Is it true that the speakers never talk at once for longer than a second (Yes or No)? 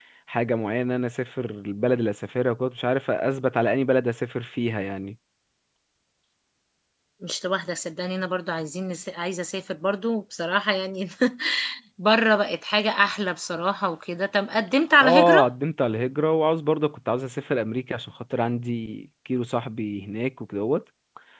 Yes